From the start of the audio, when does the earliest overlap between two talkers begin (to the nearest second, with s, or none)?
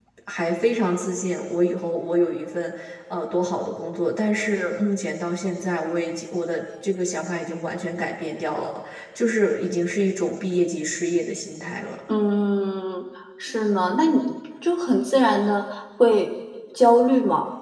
none